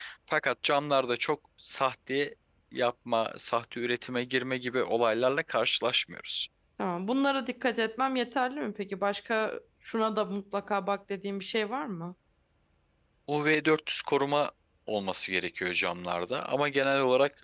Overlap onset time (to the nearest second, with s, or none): none